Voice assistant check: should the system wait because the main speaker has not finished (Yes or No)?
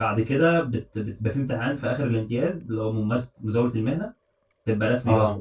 Yes